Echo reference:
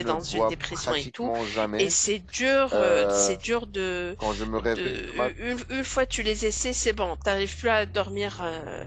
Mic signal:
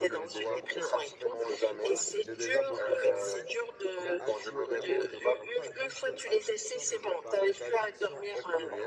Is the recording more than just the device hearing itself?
Yes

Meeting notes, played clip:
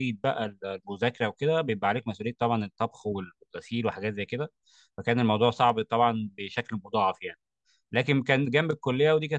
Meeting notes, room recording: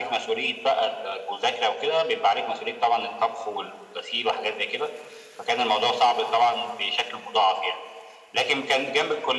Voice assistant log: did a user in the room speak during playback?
No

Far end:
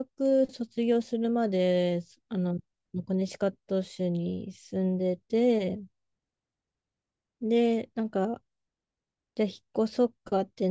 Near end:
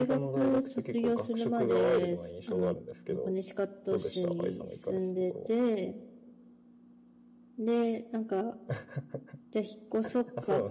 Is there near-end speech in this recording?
Yes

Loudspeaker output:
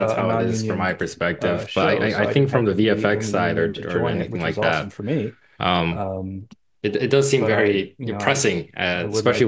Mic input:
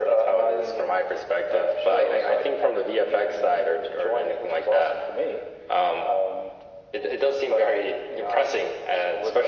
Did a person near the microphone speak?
No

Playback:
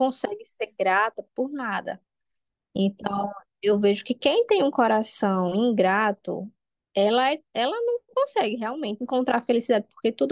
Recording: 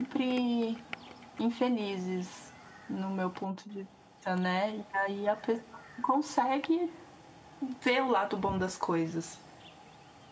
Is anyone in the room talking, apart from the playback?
Yes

